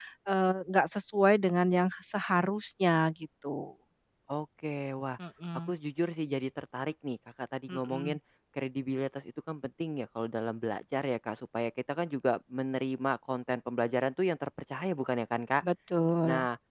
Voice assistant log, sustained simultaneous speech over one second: none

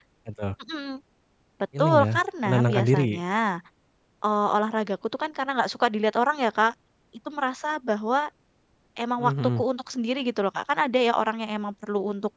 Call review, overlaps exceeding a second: present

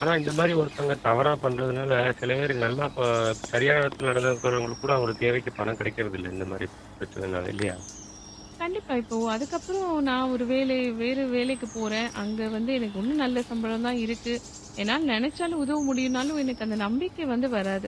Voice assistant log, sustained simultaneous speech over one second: none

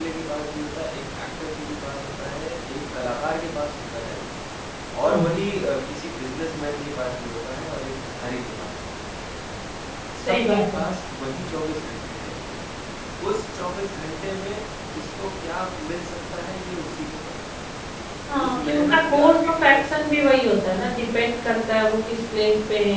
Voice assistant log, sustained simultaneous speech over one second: present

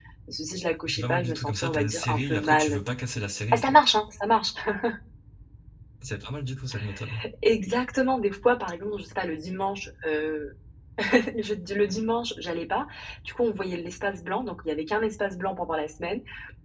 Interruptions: present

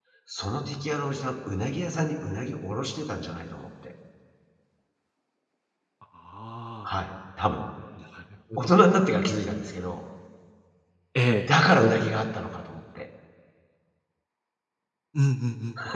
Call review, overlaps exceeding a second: none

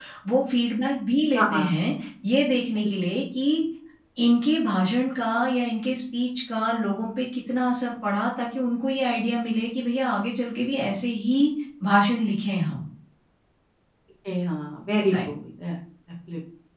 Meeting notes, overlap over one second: none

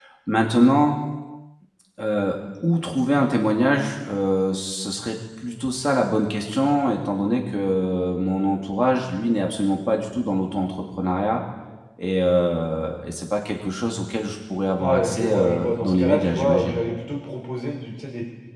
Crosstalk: present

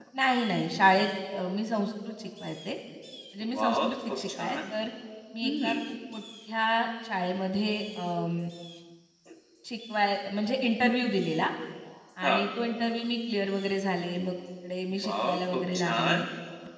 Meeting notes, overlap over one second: present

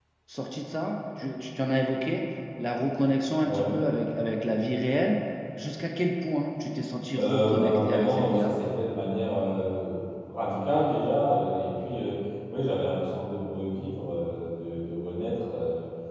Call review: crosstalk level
present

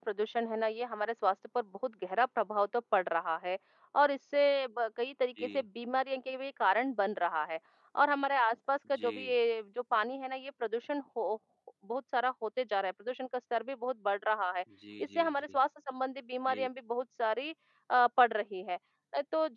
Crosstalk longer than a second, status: none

